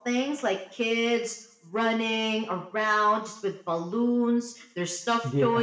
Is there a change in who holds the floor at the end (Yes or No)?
No